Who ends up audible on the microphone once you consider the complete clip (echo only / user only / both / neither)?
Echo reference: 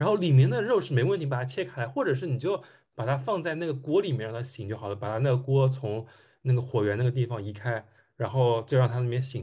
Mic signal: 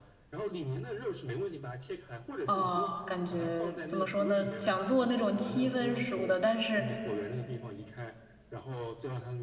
both